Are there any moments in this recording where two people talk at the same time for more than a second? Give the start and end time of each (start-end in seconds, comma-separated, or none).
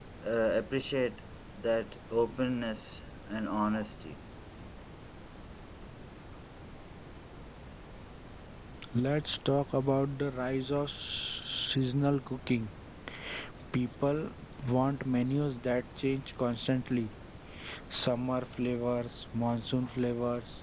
none